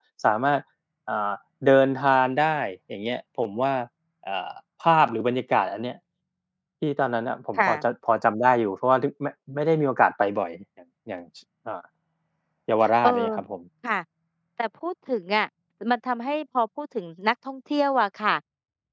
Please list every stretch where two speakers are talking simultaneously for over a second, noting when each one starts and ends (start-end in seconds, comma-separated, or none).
none